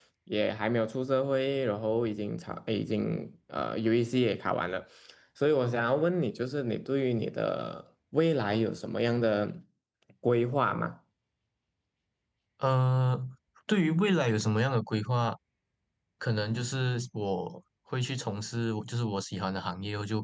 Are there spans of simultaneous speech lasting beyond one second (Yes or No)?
No